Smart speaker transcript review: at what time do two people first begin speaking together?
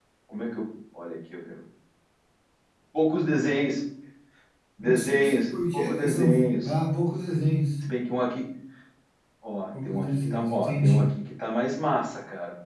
4.8 s

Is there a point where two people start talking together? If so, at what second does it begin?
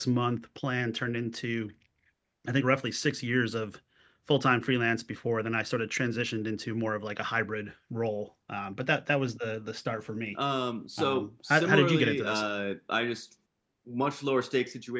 11.0 s

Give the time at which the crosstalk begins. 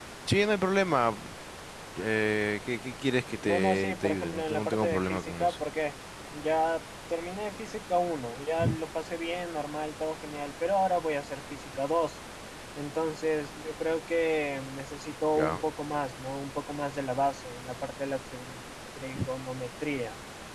3.4 s

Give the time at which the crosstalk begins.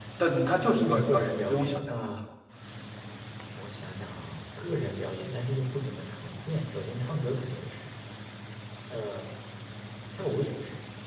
0.8 s

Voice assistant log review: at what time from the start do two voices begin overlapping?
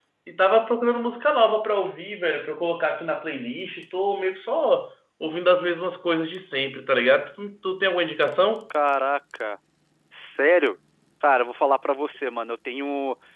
none

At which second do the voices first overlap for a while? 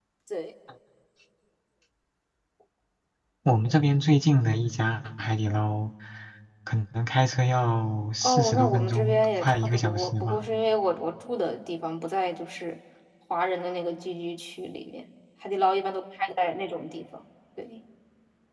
8.2 s

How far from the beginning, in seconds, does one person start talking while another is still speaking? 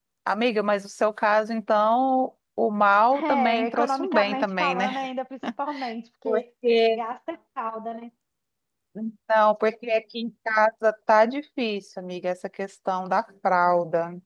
3.1 s

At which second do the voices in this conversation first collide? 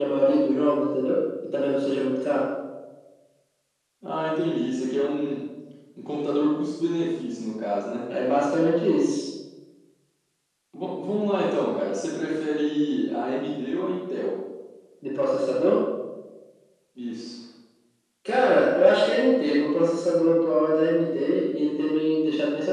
none

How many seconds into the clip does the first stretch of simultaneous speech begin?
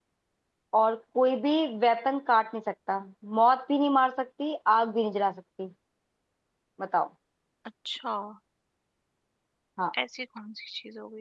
none

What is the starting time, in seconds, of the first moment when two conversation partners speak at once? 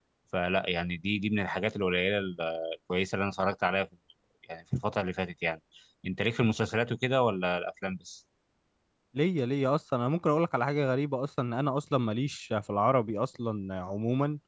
none

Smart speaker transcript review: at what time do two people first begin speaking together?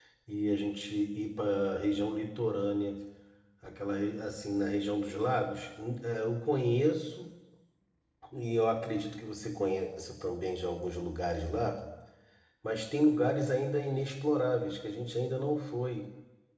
none

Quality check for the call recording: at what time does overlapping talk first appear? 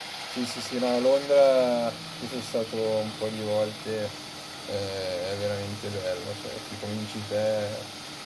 none

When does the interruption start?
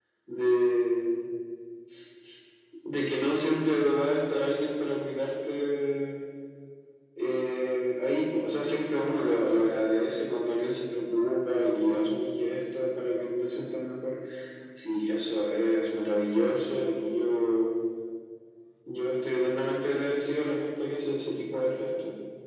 none

